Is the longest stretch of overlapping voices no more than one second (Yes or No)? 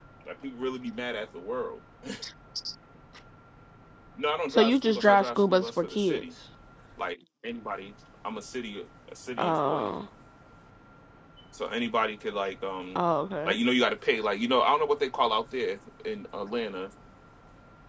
No